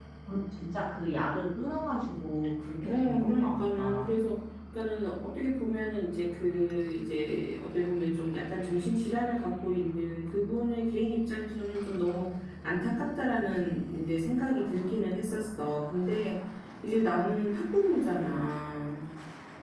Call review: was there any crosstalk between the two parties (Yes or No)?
Yes